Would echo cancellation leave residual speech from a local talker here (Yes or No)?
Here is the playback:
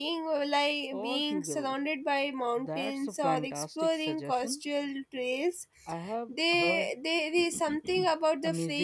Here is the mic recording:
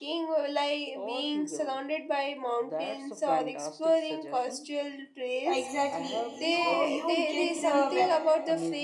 Yes